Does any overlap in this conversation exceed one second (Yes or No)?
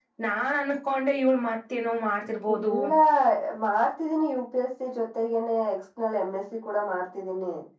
No